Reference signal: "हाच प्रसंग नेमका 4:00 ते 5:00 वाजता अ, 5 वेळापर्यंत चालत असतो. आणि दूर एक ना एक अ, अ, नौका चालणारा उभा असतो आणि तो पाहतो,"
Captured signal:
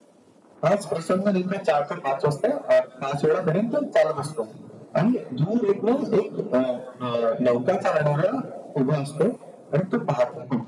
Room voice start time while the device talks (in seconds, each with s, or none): none